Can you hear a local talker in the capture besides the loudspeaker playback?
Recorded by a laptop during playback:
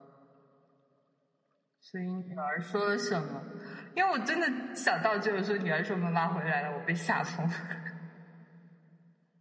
No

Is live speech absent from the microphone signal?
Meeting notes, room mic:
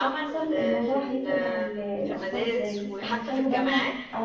No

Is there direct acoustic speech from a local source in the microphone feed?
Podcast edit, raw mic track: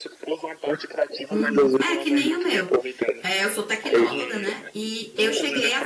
Yes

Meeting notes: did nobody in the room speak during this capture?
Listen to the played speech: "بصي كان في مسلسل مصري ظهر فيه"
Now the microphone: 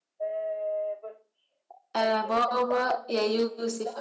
No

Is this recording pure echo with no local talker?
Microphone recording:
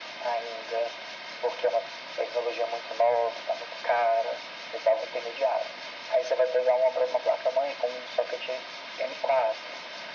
Yes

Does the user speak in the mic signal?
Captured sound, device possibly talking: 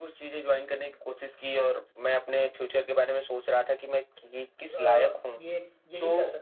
Yes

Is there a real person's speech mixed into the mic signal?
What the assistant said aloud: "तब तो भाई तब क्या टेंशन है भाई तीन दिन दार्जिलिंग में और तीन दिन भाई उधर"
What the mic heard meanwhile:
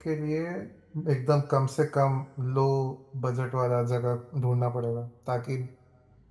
Yes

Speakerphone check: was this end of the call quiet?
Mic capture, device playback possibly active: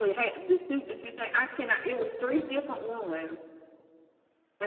Yes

